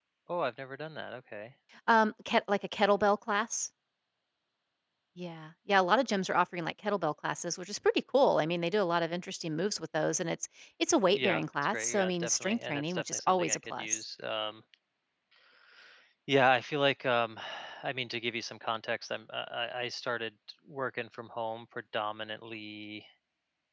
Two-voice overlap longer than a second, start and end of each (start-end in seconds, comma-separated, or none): 11.1-14.0